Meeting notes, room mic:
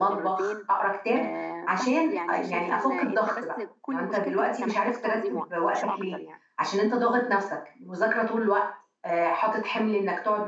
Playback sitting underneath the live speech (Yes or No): Yes